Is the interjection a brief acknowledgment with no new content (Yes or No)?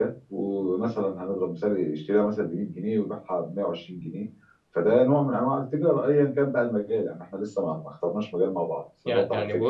No